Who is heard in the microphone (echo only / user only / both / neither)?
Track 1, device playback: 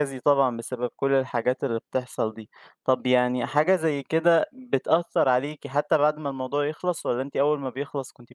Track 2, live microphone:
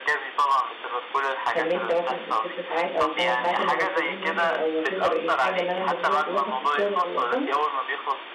both